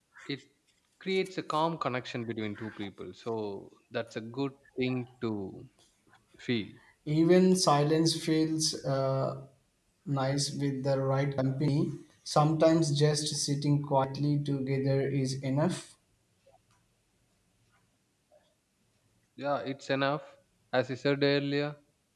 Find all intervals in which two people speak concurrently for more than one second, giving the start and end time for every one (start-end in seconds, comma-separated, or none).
none